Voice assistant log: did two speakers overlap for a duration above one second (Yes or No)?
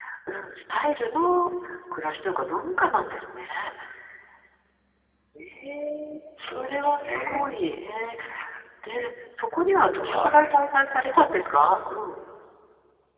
Yes